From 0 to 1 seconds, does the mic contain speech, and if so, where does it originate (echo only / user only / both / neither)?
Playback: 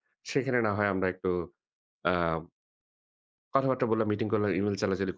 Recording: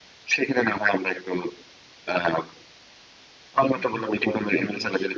echo only